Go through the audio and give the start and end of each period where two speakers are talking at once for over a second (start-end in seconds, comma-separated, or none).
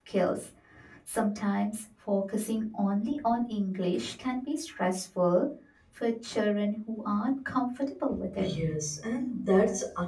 none